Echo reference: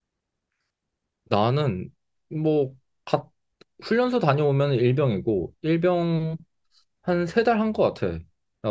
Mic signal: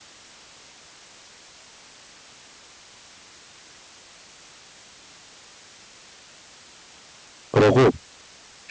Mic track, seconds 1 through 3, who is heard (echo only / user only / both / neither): neither